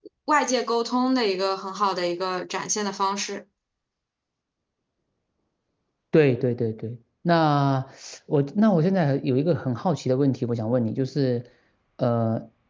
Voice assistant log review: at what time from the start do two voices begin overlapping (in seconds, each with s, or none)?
none